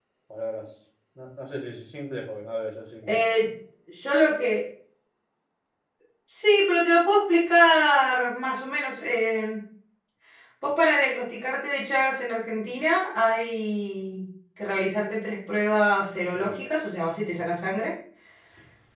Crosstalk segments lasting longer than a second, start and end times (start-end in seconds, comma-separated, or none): none